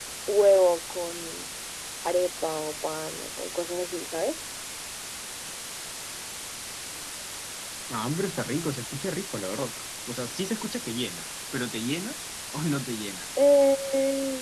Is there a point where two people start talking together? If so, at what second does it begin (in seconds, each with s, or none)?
none